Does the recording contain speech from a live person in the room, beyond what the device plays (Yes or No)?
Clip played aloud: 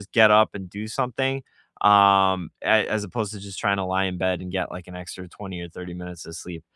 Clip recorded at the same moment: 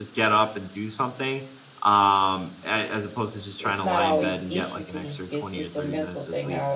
Yes